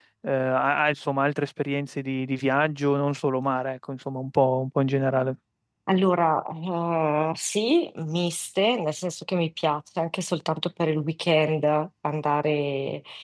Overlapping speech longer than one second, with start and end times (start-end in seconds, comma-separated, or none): none